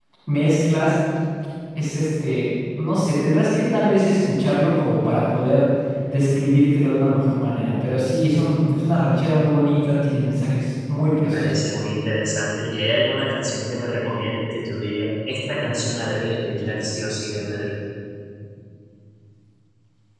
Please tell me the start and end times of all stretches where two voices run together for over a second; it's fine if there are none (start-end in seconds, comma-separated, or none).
none